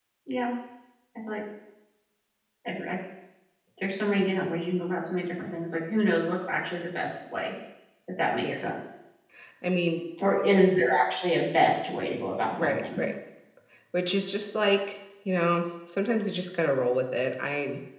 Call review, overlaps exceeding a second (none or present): none